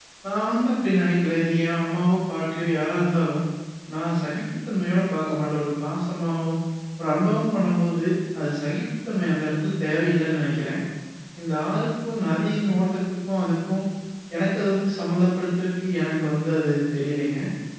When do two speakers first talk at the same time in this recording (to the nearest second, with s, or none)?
none